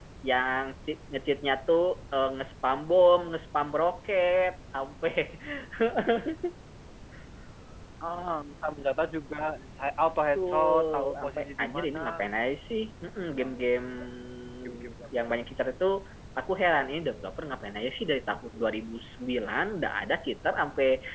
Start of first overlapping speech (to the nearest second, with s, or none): 10 s